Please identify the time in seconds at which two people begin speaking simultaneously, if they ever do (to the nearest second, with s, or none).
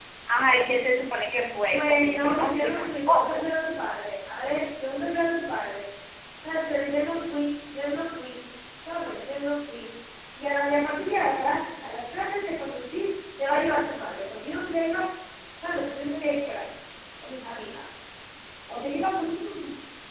2 s